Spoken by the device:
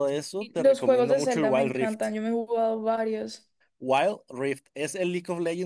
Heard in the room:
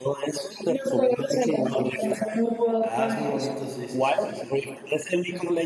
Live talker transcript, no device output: Ah, es muy bonito, sí, sí, sí, sí, sí.

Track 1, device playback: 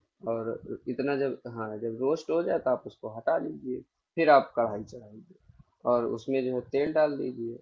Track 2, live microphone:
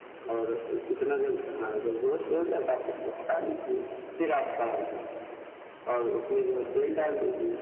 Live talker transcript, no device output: none

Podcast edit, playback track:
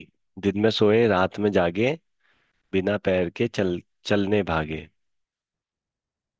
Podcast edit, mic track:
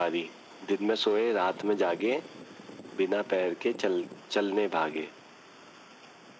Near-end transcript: none

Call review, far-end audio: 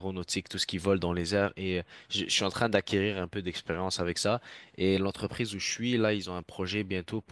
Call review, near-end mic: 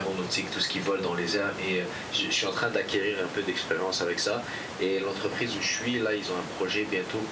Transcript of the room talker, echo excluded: none

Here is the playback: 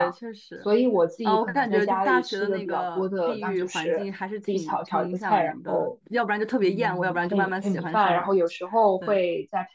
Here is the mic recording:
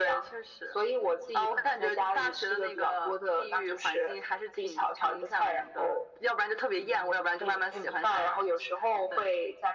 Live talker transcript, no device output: none

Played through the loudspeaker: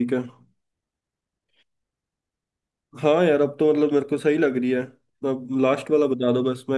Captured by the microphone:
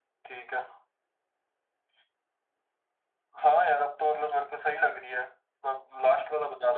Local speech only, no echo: none

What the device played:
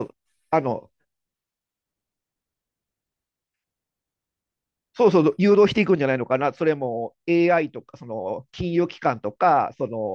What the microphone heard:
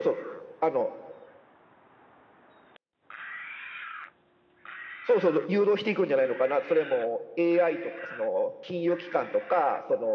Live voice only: none

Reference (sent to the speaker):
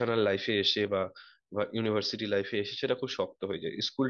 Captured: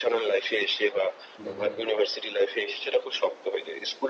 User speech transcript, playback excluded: দেখা যাক

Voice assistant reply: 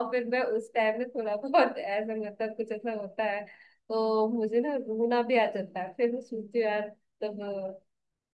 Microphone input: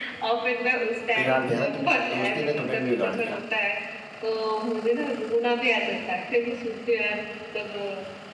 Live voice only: बिगाड़ दिया ना तुम्हें दोस्ती ने तुम्हें भी बिगाड़ दिया

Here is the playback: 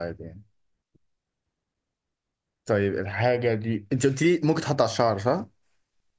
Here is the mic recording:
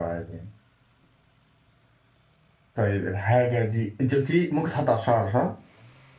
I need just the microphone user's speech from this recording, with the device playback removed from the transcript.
none

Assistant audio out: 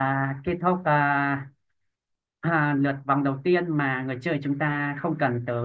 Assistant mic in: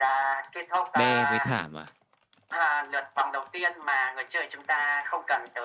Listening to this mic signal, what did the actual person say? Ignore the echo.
đe với thảm à?

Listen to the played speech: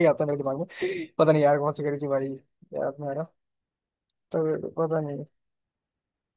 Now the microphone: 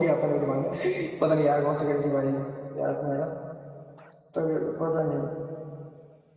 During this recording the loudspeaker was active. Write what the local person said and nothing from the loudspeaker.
none

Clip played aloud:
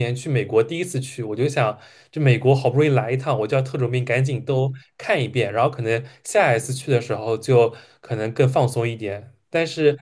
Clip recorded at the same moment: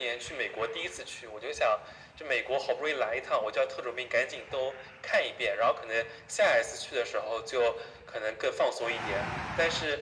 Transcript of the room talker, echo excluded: none

